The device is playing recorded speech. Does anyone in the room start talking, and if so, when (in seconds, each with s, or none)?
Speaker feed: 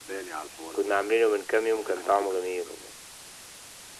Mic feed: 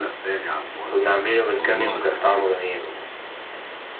1.6 s